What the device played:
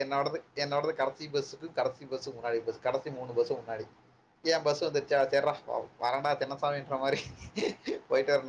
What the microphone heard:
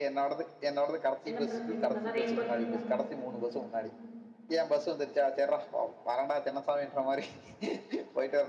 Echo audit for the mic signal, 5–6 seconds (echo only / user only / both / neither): echo only